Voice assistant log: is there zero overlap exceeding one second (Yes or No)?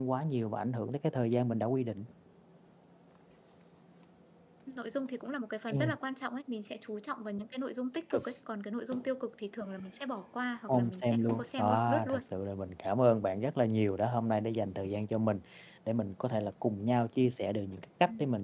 No